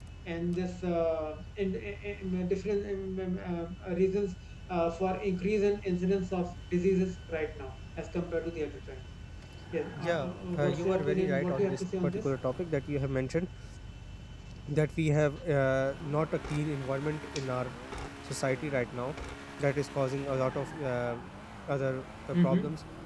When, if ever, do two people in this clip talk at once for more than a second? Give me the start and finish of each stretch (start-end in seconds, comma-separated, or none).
9.9-12.2